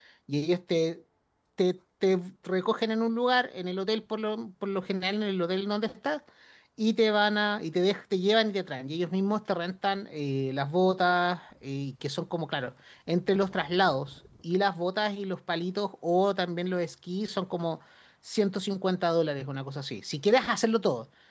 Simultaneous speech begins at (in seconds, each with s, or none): none